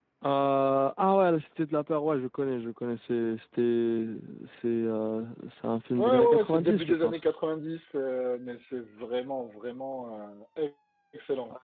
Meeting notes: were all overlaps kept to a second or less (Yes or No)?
No